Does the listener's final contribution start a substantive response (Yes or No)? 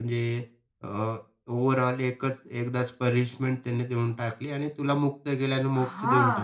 Yes